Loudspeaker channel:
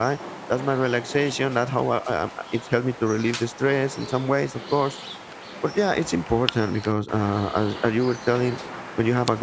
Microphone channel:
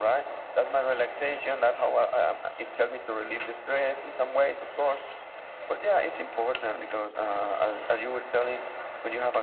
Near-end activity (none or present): none